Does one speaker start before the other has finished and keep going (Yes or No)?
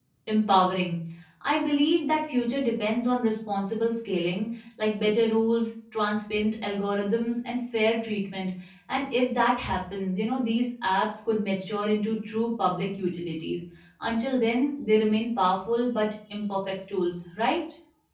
No